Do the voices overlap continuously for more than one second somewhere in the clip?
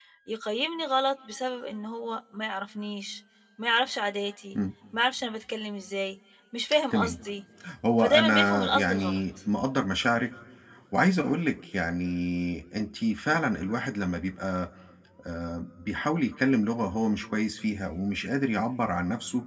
Yes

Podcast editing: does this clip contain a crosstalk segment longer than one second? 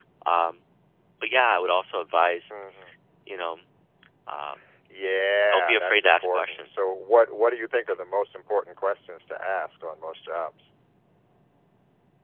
Yes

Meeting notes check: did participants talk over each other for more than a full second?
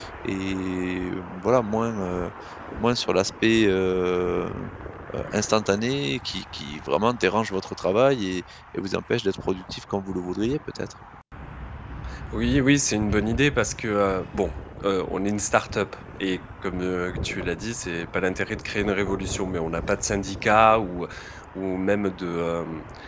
No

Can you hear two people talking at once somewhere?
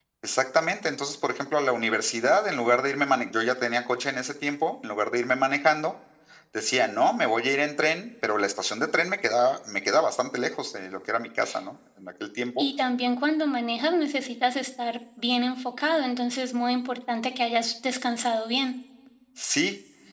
No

